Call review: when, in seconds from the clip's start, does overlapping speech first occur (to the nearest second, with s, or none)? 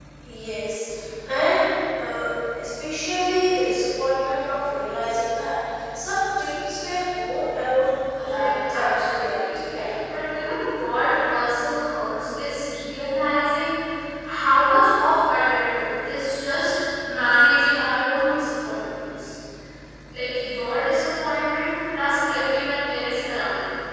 8 s